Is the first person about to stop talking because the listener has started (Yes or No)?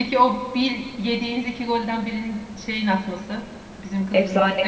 Yes